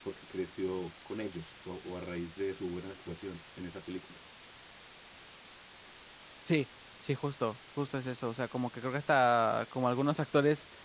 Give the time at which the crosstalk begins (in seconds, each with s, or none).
none